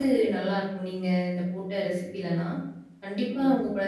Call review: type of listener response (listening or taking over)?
listening